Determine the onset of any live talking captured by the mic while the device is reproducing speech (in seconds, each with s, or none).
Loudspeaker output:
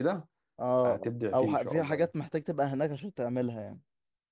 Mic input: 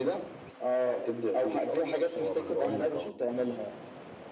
2.2 s